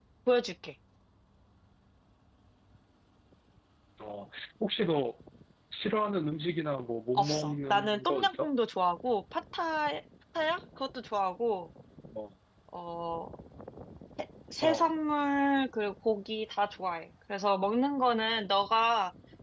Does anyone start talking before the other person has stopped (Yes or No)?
Yes